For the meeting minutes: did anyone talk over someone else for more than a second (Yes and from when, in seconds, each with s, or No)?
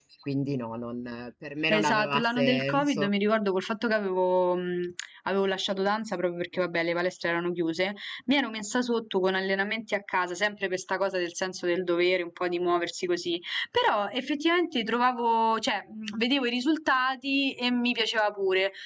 Yes, from 1.7 s